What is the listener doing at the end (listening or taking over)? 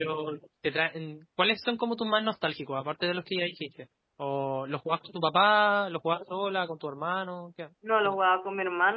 taking over